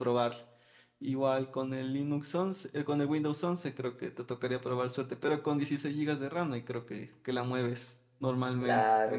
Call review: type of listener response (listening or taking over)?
taking over